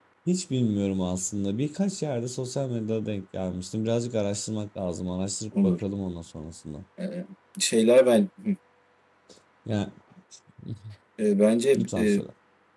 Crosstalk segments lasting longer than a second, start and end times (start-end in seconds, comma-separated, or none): none